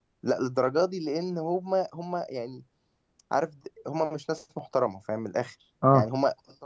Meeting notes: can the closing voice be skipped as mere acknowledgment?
Yes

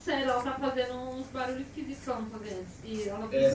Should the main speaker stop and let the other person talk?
Yes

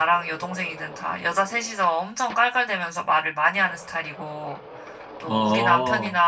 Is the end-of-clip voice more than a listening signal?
No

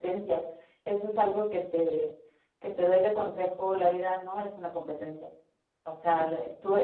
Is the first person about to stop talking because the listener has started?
No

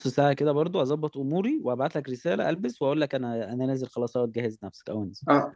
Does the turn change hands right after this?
Yes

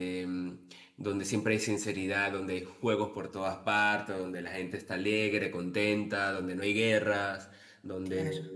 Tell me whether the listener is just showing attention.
Yes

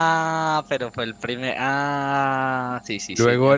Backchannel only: No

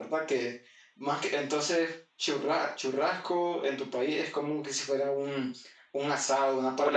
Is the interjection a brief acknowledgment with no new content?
No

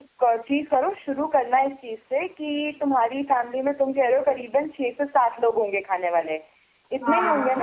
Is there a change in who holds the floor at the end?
Yes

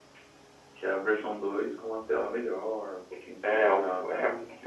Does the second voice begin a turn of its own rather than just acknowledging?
Yes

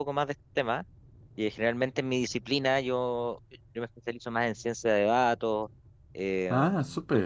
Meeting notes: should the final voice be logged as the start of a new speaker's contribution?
No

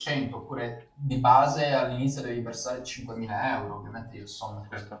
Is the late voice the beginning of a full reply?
No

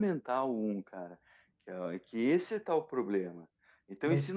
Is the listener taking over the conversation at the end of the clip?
No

